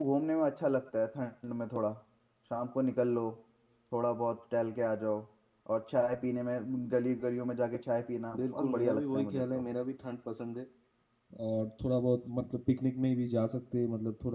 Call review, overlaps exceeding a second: present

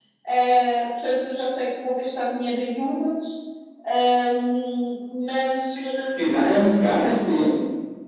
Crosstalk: none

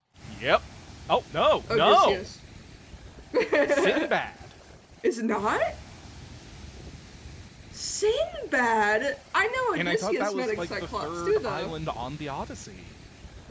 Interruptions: present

